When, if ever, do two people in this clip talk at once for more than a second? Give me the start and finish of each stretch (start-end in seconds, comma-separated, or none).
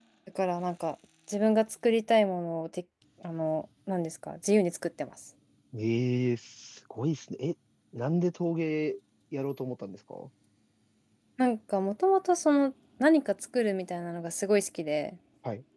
none